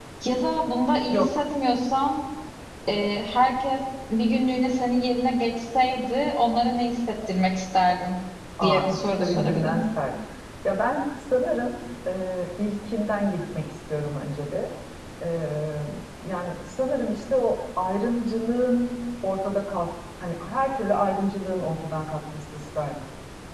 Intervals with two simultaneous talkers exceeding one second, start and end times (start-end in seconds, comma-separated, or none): 8.6-9.8